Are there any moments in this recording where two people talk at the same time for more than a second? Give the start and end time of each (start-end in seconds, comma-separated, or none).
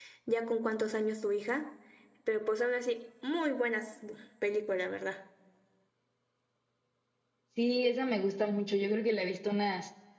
none